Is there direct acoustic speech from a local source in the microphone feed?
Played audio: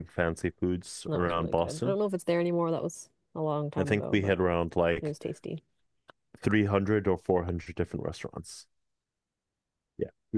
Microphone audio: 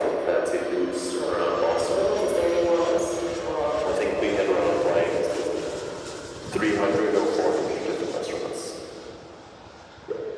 No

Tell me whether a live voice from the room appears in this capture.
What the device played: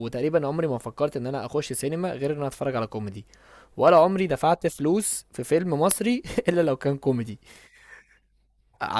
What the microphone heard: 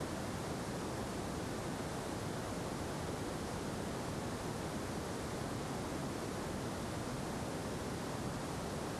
No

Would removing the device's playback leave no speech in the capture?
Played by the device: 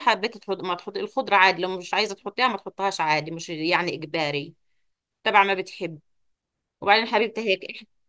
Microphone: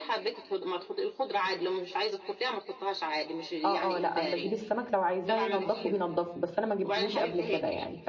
No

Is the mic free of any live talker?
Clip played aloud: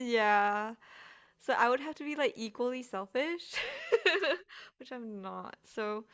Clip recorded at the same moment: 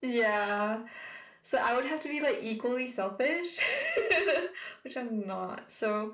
Yes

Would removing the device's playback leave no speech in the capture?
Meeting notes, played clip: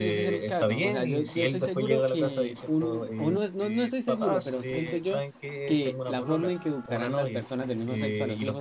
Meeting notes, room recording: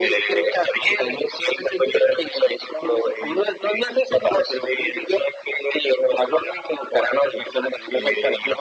Yes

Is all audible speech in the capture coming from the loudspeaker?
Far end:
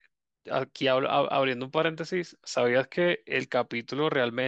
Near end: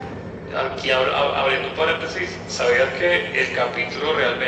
Yes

